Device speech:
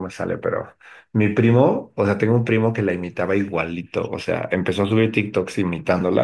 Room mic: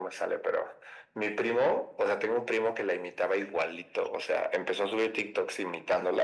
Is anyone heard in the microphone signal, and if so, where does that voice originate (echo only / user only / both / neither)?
echo only